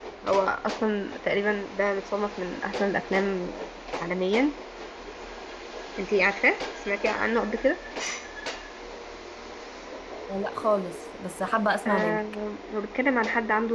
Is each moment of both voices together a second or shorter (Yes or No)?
Yes